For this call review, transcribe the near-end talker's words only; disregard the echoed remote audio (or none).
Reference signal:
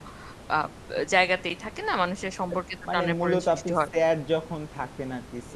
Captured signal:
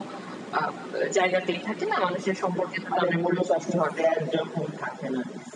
none